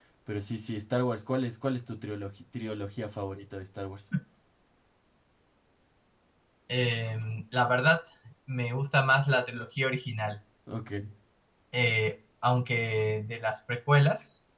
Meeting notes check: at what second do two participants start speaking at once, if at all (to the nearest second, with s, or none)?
none